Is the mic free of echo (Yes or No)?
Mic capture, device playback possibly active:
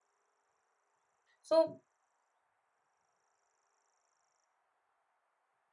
Yes